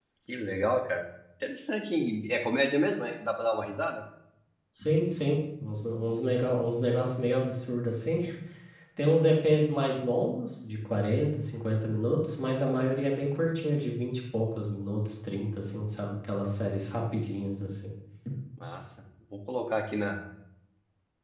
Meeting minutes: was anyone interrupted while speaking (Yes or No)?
No